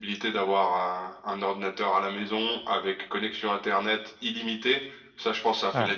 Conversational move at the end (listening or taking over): listening